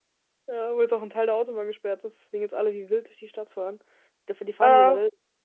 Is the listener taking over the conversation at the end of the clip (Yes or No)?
No